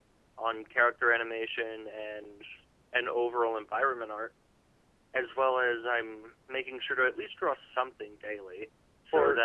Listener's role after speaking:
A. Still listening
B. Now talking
A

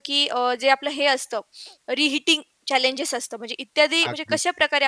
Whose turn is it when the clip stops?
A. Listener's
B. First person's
B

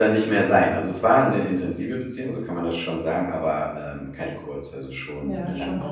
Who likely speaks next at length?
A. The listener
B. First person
A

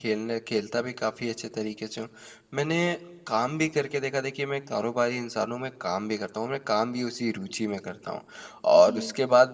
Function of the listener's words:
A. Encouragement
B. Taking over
A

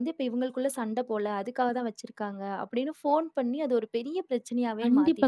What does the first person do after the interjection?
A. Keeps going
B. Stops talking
B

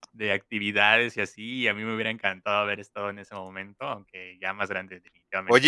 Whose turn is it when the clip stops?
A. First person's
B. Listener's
B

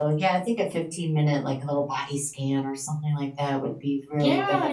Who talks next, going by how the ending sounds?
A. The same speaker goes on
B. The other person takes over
B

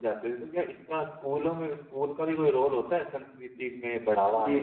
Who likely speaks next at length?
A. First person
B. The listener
B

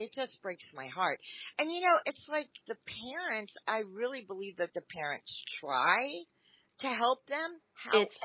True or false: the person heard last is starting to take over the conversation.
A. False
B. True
A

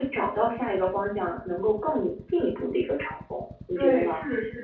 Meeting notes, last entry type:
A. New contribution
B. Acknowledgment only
A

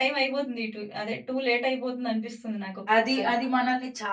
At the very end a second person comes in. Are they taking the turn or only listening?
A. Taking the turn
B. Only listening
A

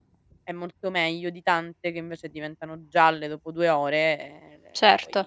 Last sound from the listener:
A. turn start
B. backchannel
A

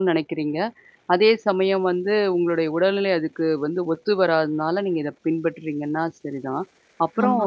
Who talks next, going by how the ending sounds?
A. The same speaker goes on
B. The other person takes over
A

